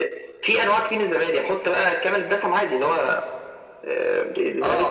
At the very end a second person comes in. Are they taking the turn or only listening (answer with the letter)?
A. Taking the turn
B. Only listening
A